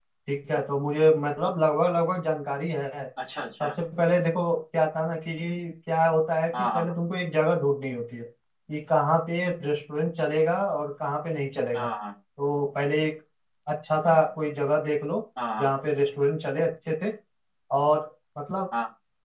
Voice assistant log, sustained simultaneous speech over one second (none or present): none